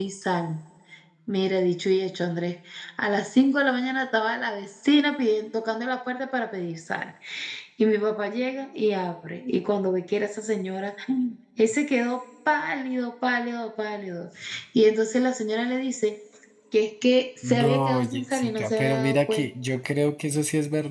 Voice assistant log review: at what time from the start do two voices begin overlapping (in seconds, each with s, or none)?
17.5 s